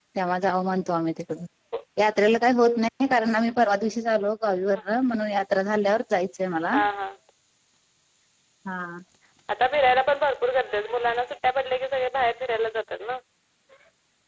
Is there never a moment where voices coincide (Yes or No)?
Yes